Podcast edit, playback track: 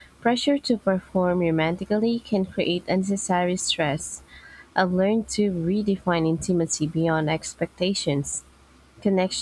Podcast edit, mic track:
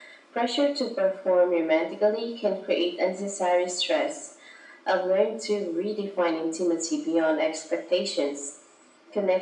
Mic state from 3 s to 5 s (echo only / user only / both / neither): echo only